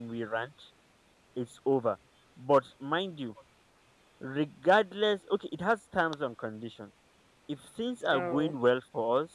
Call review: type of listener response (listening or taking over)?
listening